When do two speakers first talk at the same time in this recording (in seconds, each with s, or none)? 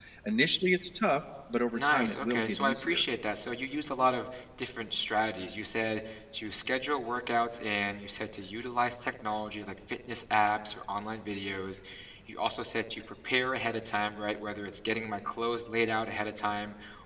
1.7 s